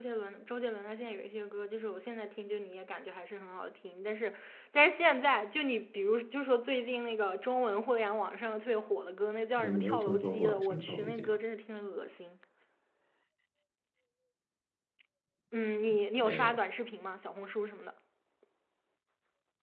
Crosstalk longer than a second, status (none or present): present